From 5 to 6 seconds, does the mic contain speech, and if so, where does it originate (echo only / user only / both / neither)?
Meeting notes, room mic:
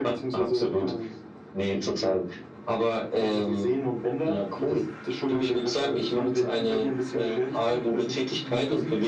echo only